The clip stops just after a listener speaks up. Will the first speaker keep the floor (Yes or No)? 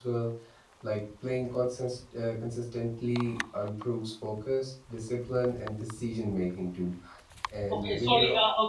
No